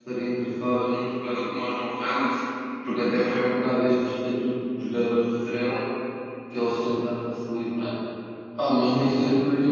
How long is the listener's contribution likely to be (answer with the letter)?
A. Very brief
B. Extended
A